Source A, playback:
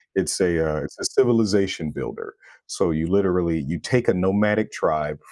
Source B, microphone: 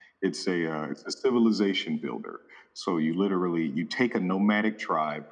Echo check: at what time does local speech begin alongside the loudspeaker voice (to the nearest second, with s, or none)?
none